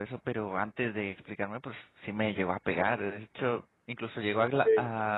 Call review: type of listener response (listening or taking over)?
listening